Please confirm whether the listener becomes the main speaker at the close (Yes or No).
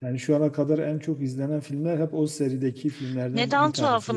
Yes